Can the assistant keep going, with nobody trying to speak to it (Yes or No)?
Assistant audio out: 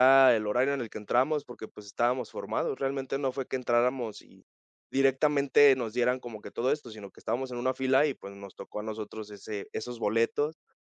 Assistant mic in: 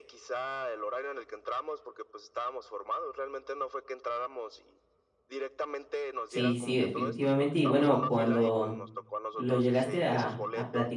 No